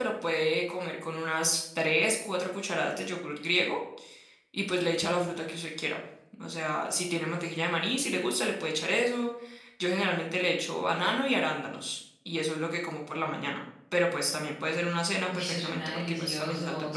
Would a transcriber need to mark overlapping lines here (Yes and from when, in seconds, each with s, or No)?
Yes, from 15.3 s